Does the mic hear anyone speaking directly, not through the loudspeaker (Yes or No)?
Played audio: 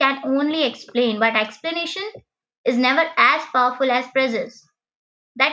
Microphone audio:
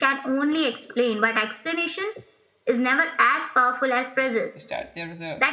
Yes